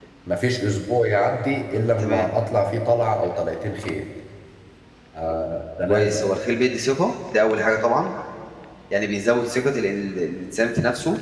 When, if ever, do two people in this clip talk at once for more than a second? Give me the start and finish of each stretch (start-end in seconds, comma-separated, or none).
none